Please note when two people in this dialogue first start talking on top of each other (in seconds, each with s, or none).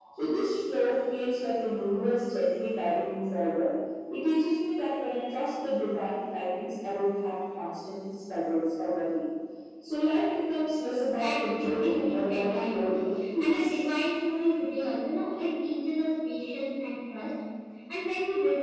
11.2 s